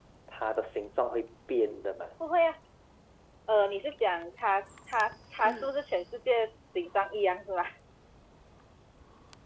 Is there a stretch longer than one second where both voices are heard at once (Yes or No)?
No